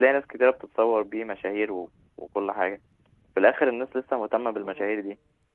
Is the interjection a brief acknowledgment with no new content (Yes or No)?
Yes